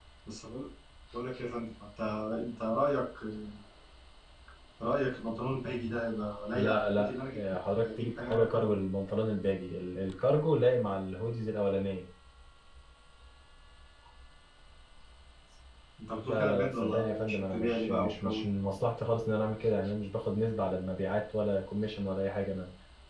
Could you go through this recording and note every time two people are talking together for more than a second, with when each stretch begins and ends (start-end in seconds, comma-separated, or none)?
6.5-8.8, 16.2-18.5